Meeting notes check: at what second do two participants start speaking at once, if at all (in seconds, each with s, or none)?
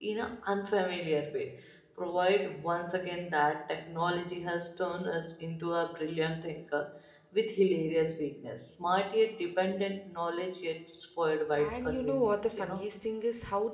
11.5 s